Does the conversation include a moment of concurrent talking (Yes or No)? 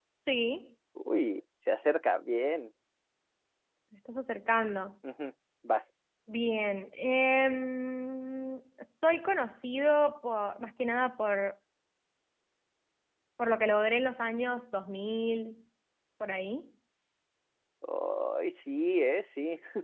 No